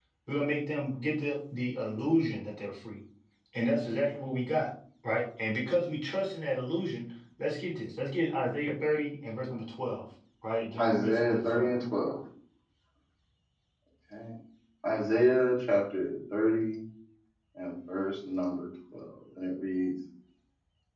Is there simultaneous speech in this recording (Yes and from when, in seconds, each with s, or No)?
Yes, from 10.8 s